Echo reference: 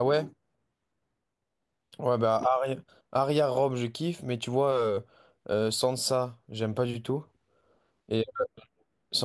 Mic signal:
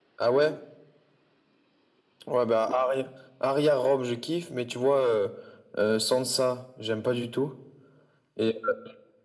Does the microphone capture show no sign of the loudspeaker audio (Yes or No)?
No